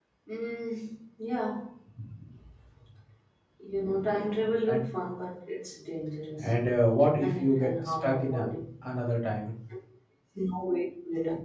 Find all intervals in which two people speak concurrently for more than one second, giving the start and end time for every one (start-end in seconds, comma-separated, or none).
7.2-8.4